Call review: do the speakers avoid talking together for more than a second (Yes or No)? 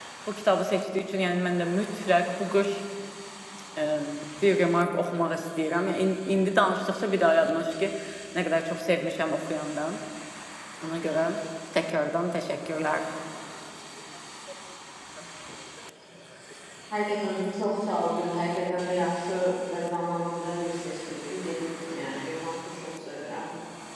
Yes